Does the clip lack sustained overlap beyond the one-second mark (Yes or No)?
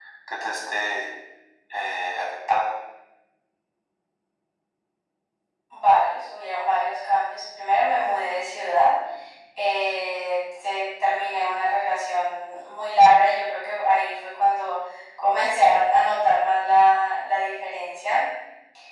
Yes